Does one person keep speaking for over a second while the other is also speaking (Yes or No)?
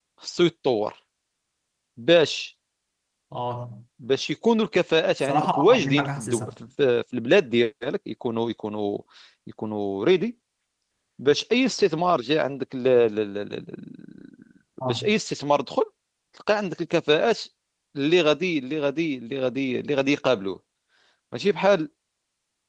Yes